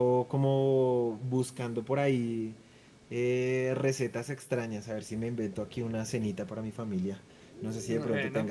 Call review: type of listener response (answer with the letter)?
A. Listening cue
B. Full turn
A